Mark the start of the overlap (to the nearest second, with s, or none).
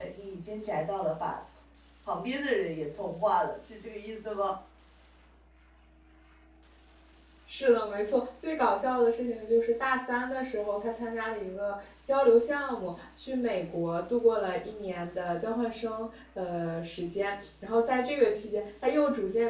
none